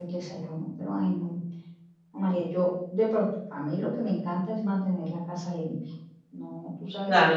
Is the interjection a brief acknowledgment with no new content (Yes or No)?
No